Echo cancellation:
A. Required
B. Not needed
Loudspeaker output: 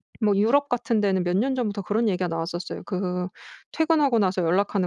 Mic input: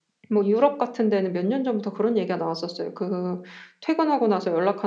A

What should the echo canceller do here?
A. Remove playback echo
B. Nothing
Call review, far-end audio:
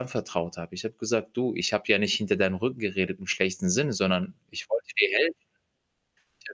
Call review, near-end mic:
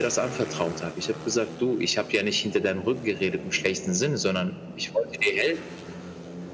A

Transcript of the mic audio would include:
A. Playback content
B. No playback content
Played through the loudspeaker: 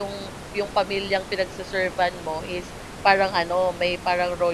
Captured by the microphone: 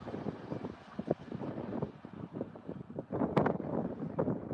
B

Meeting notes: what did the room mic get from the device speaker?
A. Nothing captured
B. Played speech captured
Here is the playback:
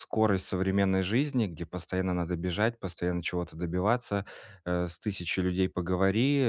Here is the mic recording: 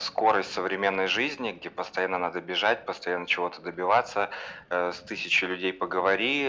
B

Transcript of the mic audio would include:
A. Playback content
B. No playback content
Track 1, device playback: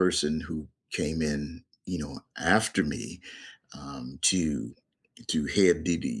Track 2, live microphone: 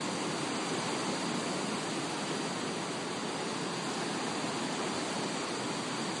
B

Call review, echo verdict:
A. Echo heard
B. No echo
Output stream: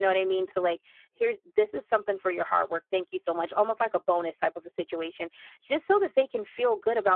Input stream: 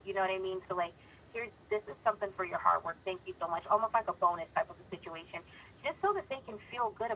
A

